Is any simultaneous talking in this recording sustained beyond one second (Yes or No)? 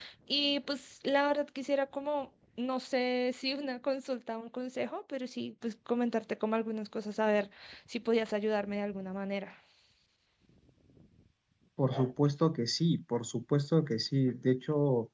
No